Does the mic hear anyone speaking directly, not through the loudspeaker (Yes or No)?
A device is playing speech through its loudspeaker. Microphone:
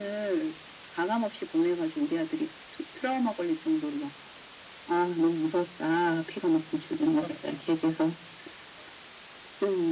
No